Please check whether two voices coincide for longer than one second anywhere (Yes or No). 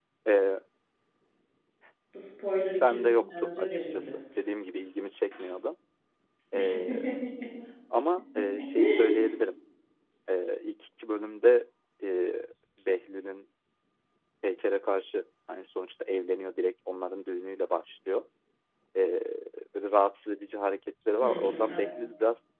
Yes